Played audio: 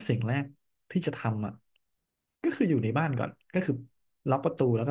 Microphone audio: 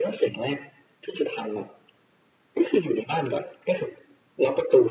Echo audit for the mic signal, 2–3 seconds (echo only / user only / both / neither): echo only